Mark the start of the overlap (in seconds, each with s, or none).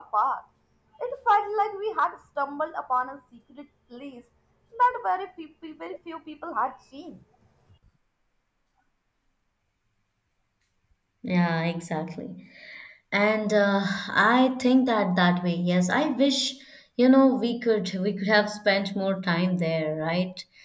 none